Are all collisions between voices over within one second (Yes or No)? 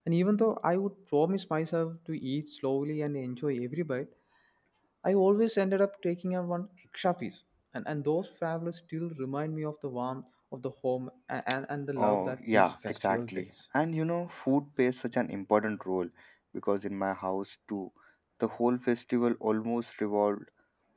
No